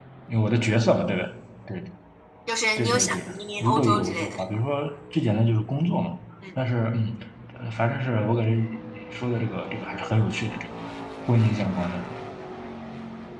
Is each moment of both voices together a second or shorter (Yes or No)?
No